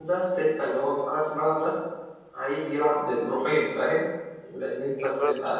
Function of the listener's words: listening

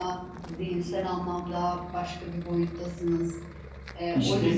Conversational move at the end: taking over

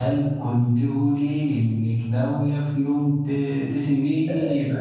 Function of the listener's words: taking over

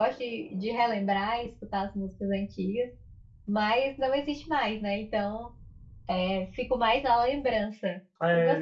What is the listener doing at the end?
taking over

